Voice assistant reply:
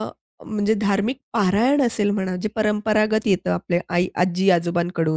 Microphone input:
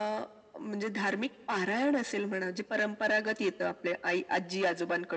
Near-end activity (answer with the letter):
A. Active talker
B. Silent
B